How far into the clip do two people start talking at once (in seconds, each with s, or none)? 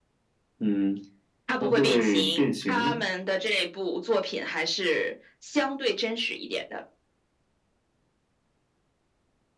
1.6 s